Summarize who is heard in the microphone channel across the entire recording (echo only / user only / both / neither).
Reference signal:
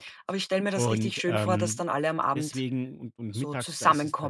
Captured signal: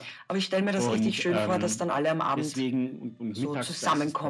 echo only